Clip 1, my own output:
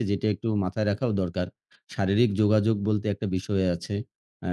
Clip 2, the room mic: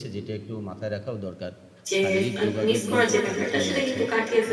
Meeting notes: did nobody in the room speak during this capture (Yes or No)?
No